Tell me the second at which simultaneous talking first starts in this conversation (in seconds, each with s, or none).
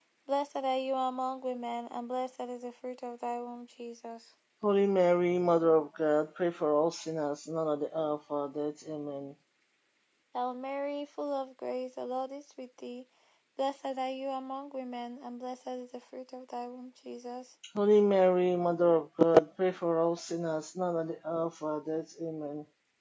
none